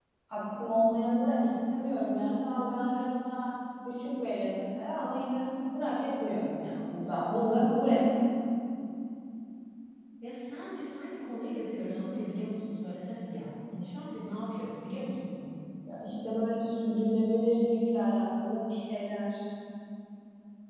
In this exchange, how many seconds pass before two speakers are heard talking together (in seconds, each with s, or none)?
none